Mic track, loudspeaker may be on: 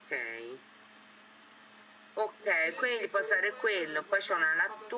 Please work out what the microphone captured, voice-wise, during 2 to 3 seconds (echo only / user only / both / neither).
both